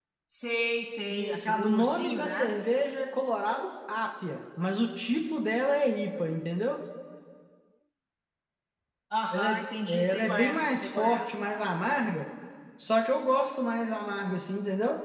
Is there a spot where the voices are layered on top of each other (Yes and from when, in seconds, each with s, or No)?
Yes, from 1.1 s